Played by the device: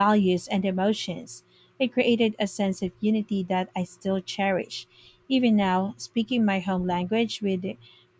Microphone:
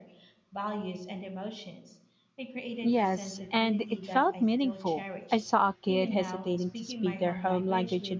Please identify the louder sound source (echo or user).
user